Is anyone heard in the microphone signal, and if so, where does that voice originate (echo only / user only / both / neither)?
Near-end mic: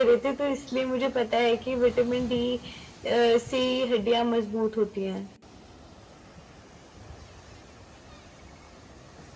echo only